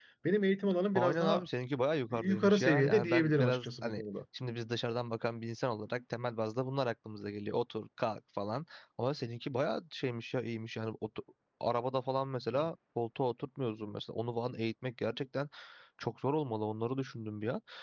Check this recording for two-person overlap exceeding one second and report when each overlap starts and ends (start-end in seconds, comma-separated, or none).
2.1-4.0